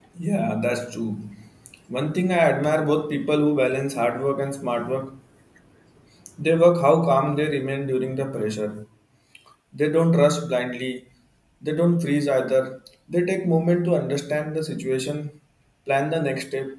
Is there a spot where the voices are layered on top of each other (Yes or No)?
No